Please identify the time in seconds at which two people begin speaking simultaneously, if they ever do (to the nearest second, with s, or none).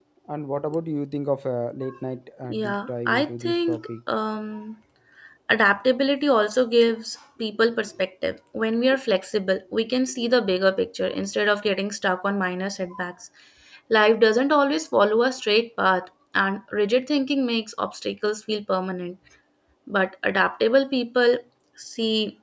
2 s